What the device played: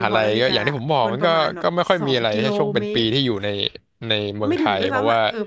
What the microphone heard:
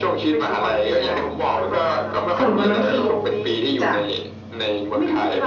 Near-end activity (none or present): present